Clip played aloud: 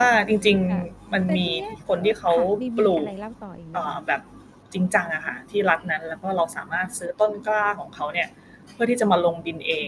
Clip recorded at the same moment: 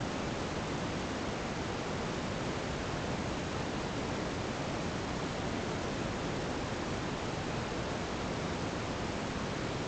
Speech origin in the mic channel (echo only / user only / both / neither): neither